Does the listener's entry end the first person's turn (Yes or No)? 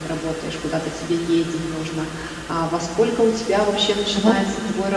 No